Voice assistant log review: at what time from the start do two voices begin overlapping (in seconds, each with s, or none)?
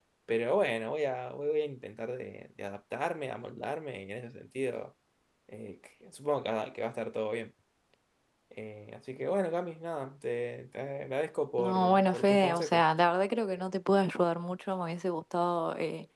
11.6 s